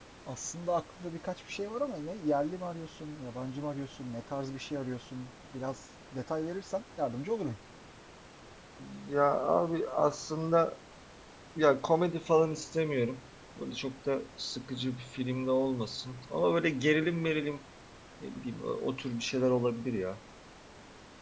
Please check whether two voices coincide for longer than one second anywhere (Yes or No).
No